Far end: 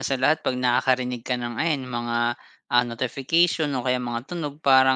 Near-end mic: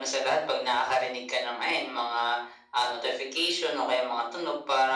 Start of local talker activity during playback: none

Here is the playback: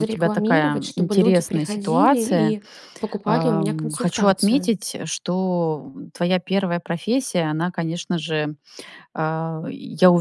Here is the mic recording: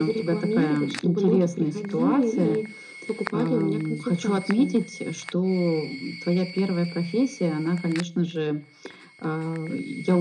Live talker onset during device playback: none

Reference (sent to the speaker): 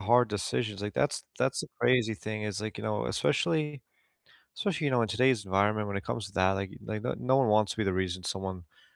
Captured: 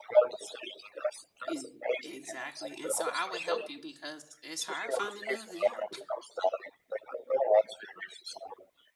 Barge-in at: 1.5 s

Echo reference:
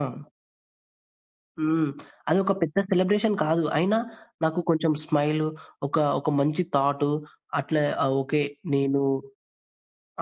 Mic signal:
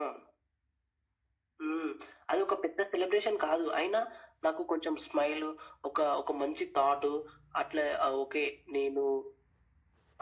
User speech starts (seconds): none

